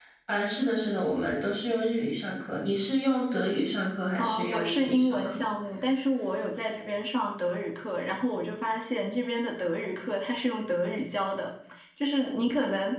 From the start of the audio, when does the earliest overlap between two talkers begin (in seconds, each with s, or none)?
4.2 s